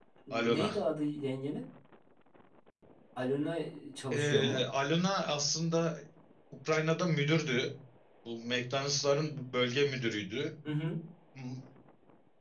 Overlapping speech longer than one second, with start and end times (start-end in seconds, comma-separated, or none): none